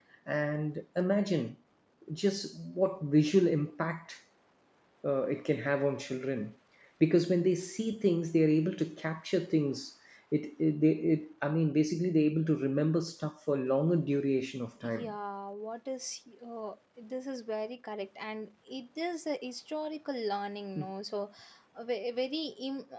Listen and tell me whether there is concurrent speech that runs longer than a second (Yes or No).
No